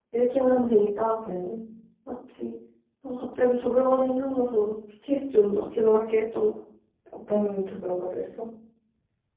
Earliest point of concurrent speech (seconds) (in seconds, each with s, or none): none